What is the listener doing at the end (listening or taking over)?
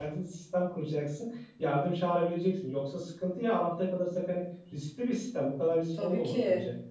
taking over